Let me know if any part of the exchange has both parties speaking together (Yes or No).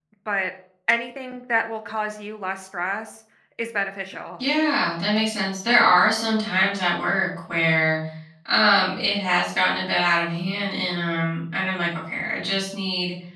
No